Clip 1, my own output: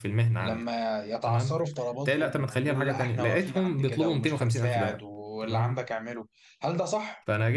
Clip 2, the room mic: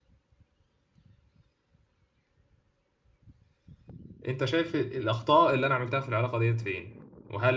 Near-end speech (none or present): present